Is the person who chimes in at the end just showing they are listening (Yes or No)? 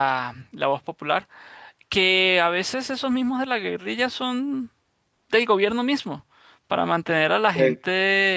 Yes